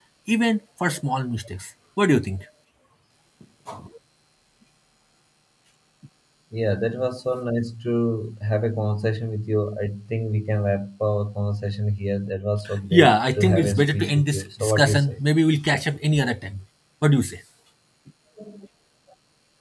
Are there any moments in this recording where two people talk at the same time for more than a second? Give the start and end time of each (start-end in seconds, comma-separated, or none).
12.9-15.2